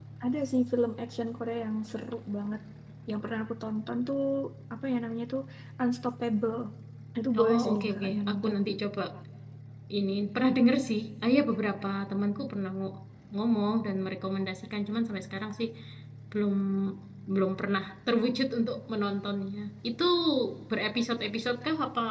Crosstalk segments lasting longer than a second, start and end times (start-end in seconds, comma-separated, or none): 7.4-8.6